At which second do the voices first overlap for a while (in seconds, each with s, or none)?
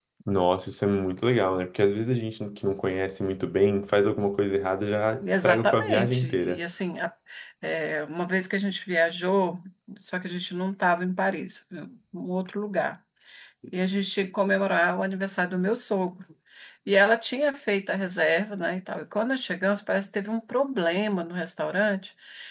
5.2 s